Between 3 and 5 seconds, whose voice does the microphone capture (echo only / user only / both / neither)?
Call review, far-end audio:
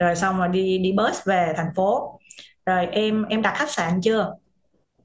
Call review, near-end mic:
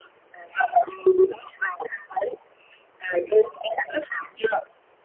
echo only